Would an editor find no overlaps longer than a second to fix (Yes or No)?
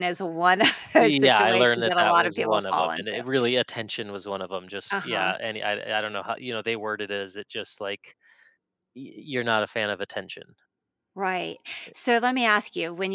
No